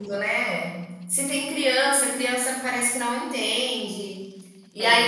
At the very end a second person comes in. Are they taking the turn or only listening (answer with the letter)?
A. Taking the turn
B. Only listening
B